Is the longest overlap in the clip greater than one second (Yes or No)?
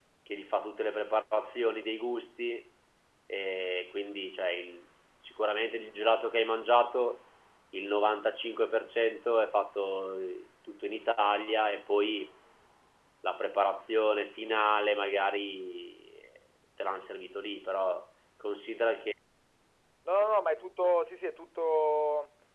No